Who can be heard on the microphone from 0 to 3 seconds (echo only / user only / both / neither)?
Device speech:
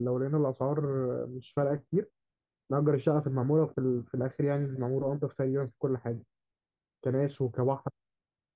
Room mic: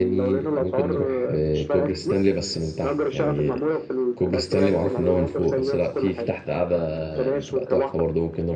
both